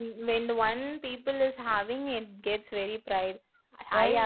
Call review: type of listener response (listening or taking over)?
taking over